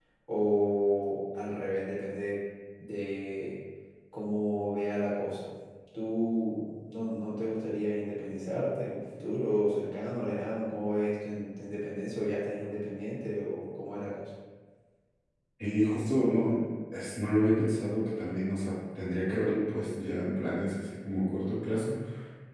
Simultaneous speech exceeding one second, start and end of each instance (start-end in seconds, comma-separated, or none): none